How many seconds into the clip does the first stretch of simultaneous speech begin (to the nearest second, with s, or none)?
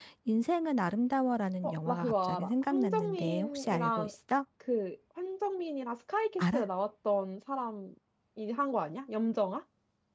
2 s